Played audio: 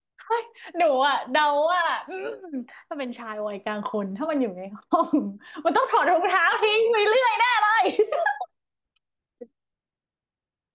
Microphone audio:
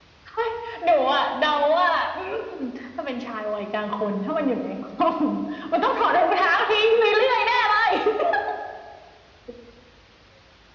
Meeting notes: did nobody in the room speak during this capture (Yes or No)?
Yes